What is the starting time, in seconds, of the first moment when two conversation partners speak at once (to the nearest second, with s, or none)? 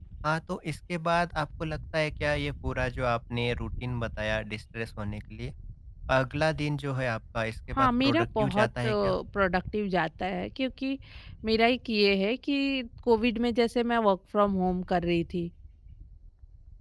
8 s